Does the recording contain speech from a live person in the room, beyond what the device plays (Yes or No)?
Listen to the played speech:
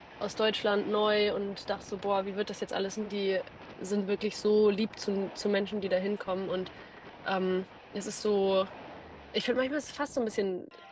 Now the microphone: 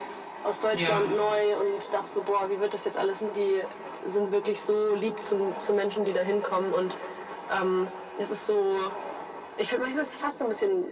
Yes